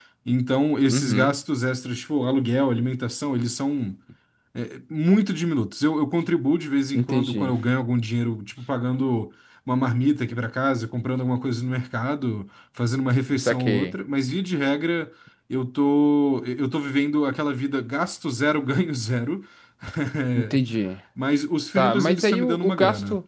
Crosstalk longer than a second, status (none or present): present